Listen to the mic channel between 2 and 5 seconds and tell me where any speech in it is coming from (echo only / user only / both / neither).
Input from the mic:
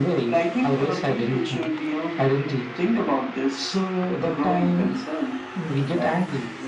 echo only